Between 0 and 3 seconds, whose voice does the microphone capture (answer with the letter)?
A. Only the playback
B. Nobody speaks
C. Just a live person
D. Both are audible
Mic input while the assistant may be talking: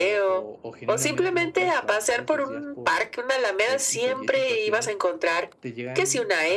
D